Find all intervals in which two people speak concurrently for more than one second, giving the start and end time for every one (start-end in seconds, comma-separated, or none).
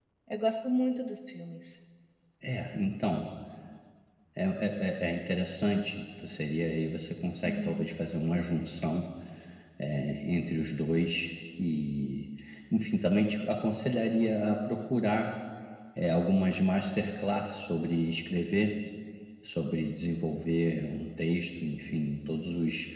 none